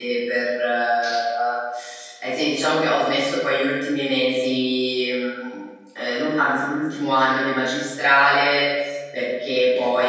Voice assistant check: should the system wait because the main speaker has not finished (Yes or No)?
Yes